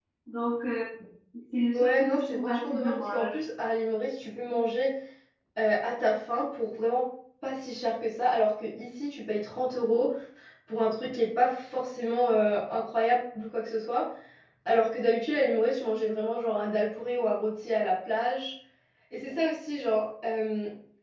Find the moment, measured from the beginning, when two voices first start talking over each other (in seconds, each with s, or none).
1.7 s